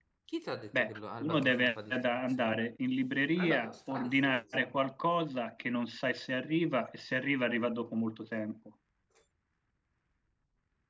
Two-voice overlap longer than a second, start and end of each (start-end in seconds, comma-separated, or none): 0.8-2.6, 3.4-4.8